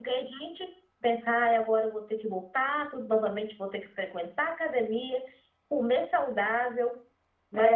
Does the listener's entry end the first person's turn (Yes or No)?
No